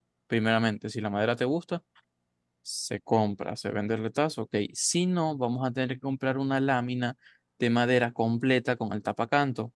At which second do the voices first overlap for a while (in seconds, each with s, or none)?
none